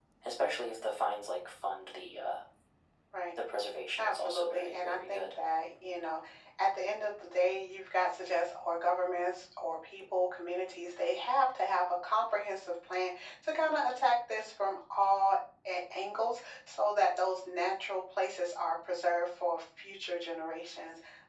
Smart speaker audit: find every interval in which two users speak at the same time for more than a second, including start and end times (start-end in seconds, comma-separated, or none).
4.0-5.3